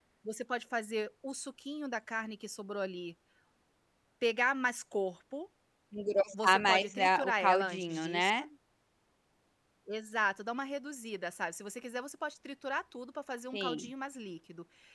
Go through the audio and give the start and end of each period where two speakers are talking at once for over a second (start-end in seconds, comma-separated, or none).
6.3-8.3